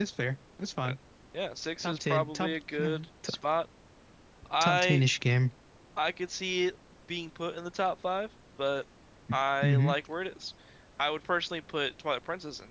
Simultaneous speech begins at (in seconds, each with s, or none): 1.8 s